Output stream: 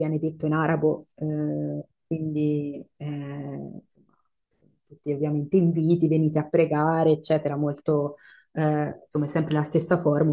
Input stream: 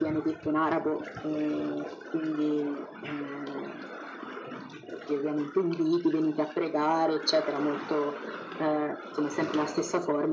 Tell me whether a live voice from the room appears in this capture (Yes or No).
No